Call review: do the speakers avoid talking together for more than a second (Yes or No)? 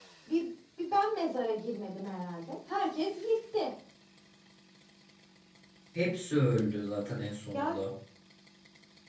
Yes